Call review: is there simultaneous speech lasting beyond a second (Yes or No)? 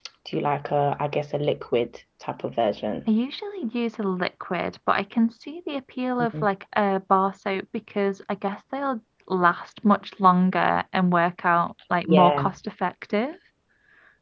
No